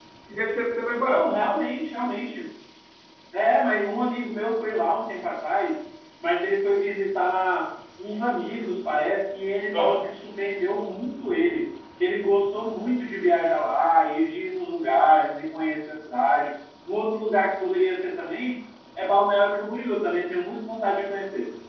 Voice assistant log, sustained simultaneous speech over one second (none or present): none